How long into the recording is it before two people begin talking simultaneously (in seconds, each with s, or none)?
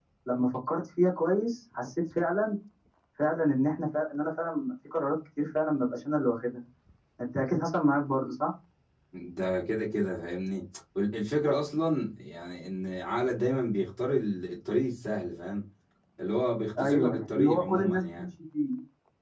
16.8 s